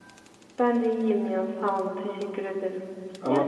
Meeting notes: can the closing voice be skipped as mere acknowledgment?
No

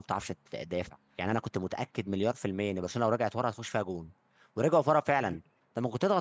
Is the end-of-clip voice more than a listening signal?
No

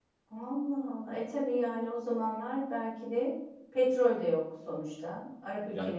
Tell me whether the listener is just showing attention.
No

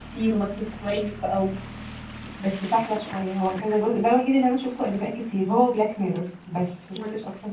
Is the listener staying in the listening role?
No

